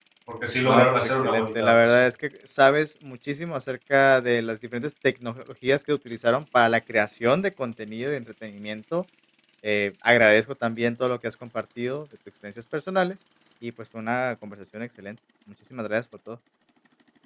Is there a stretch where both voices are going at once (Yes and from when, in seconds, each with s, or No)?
Yes, from 0.6 s